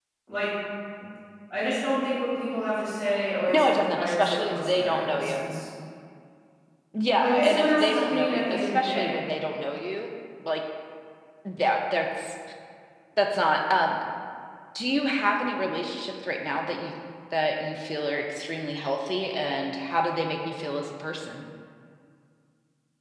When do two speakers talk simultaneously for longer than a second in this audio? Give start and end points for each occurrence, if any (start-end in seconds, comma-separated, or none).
3.5-5.4, 7.2-9.1